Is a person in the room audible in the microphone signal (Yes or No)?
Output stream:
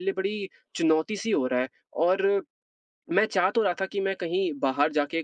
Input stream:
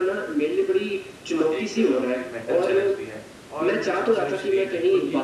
Yes